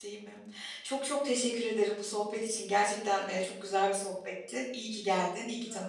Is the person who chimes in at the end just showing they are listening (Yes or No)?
No